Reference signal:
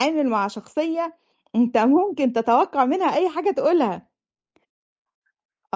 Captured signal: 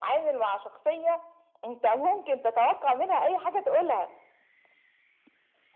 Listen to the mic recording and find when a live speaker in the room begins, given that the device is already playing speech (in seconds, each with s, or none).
none